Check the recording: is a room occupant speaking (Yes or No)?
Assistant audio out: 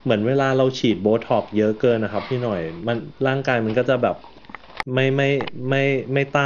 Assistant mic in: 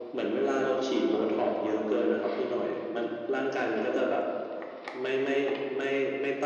No